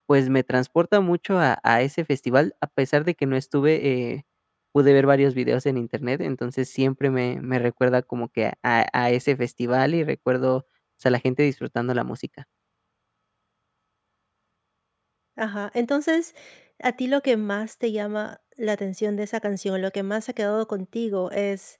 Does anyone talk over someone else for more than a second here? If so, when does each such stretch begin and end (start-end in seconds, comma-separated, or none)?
none